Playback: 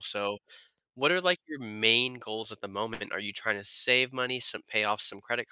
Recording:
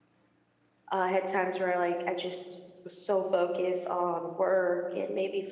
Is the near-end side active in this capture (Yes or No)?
Yes